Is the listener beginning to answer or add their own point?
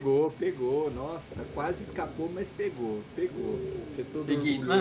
Yes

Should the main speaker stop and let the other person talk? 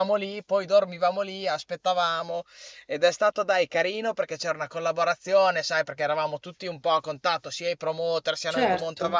No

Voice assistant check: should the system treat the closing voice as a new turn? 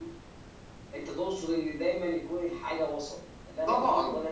Yes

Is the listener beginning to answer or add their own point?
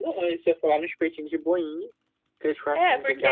Yes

